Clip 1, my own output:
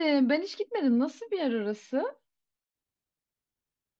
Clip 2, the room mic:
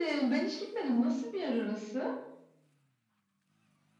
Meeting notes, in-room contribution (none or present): none